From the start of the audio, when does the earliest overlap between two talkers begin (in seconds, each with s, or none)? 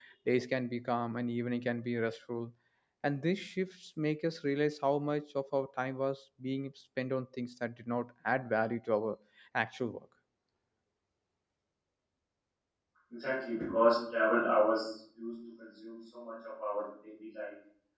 none